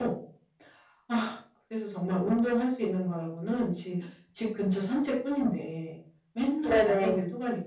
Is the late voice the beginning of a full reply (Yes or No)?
No